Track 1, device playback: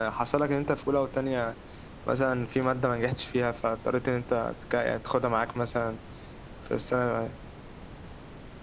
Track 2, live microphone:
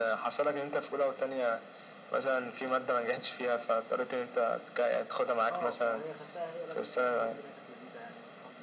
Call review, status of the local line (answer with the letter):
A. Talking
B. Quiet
A